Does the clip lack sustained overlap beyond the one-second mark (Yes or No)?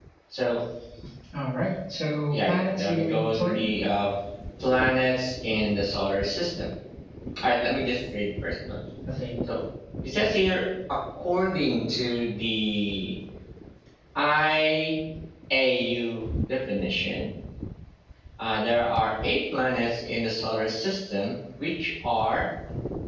No